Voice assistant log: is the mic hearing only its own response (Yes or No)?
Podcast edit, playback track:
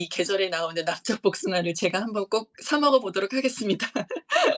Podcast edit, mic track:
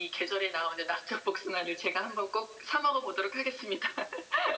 Yes